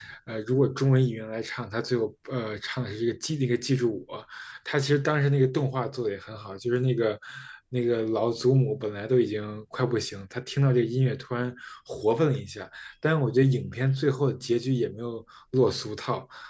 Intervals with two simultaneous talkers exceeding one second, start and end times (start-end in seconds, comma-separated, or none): none